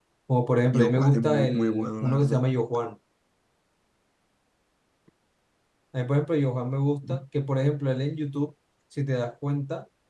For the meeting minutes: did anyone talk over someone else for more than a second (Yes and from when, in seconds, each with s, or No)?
Yes, from 0.6 s